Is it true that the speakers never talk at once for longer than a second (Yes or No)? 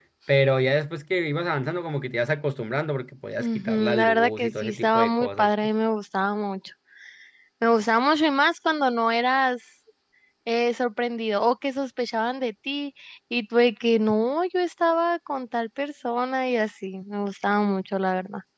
No